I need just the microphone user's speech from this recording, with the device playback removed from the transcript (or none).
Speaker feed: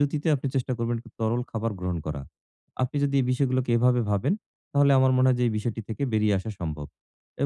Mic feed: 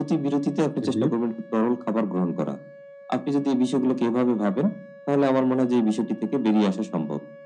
হু, হু।